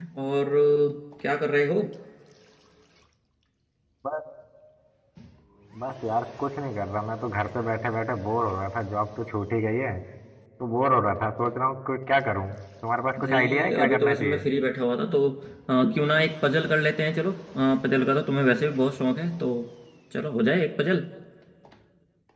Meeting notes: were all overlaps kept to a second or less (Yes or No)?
No